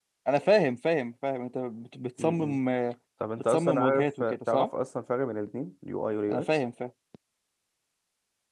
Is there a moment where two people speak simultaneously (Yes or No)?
Yes